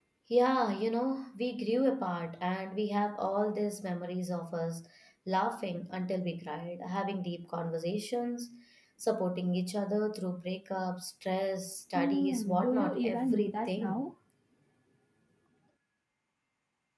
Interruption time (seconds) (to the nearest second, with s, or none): 12 s